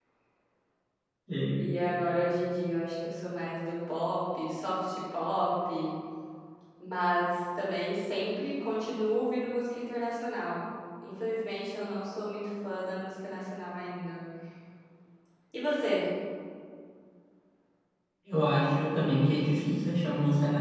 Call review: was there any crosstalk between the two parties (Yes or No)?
No